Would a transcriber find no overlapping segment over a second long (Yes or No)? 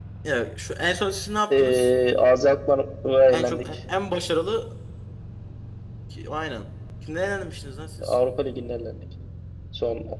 Yes